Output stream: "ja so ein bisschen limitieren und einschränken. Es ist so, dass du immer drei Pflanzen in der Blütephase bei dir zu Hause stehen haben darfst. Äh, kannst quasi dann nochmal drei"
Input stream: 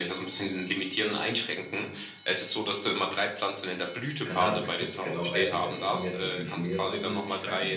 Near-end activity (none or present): present